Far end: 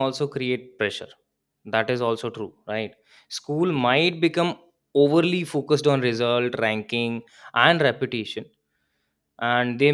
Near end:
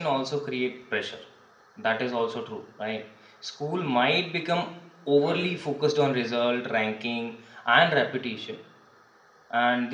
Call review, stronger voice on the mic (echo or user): echo